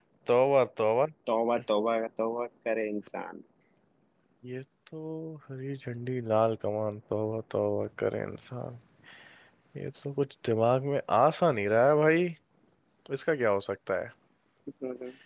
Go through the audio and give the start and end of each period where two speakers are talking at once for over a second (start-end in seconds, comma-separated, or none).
none